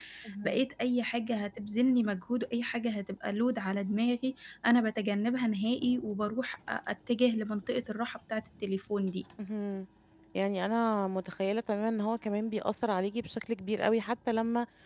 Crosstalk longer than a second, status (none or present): none